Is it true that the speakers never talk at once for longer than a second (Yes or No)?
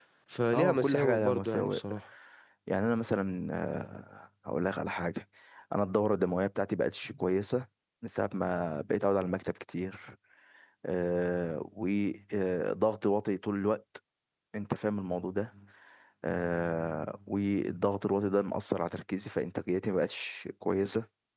No